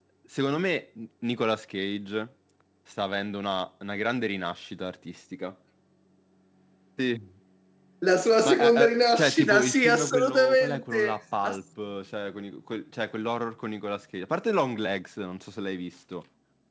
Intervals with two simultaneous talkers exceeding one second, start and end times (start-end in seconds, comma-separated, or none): 8.4-11.2